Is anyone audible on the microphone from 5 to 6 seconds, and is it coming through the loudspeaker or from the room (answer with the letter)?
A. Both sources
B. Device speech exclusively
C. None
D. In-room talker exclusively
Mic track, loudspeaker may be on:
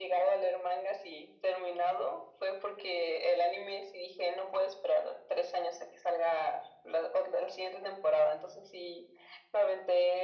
B